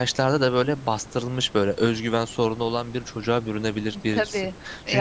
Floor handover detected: No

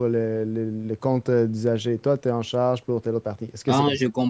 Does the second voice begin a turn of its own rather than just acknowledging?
Yes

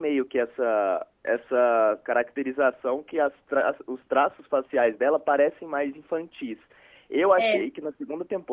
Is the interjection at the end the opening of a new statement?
No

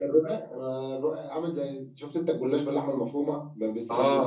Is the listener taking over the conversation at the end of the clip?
Yes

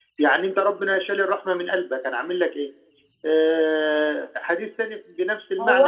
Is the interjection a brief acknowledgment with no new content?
No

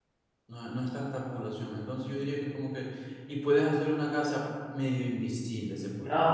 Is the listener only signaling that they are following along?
No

